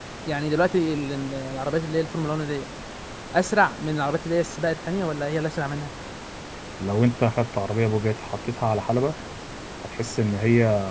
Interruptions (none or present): none